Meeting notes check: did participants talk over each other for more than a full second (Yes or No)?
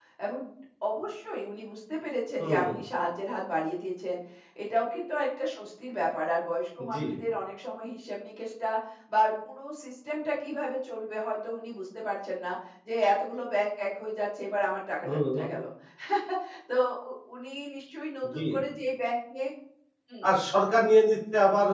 No